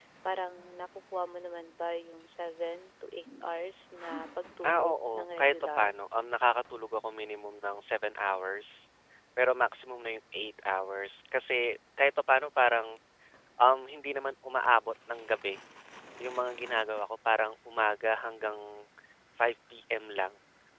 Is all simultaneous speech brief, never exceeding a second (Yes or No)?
No